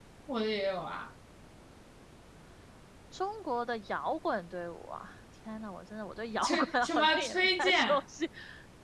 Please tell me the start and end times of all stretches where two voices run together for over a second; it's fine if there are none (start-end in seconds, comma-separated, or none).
6.4-8.0